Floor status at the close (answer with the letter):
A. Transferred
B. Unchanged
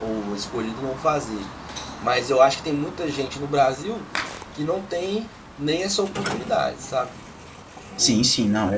A